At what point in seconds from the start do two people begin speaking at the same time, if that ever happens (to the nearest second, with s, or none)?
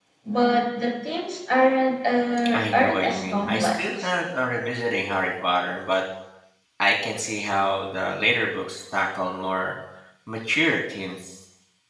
3 s